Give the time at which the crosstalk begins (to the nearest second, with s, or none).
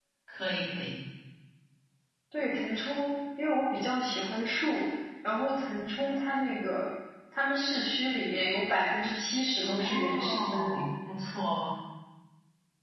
10 s